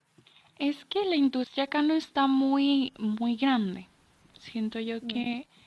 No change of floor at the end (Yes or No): Yes